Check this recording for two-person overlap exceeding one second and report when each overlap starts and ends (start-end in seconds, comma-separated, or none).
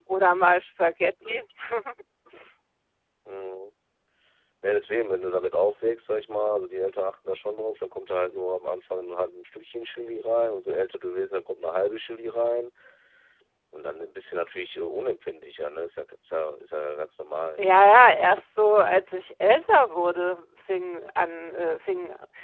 none